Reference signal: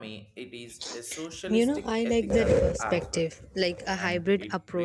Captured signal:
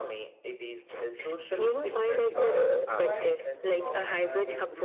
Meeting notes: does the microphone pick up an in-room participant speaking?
Yes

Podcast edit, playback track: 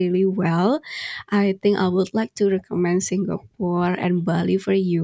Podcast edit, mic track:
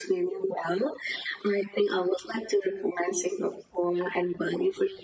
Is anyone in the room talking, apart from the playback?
No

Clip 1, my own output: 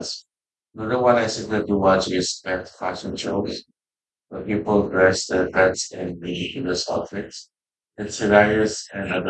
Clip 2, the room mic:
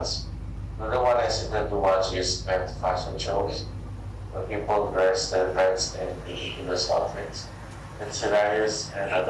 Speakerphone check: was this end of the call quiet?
Yes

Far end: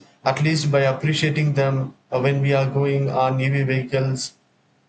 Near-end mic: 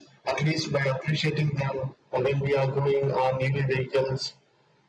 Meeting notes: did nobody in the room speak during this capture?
Yes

